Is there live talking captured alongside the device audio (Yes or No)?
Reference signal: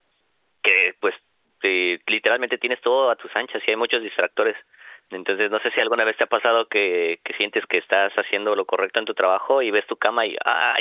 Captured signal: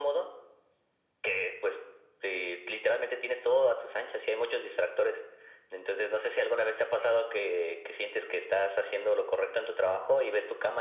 No